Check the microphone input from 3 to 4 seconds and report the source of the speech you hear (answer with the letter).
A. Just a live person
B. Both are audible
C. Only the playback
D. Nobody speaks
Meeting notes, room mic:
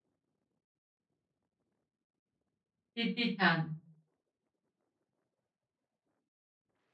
A